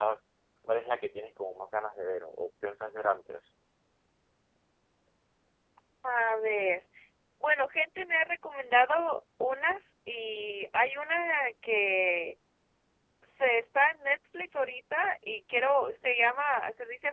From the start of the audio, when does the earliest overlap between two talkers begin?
none

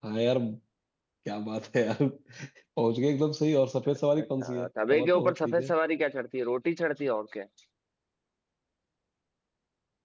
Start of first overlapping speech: 4.2 s

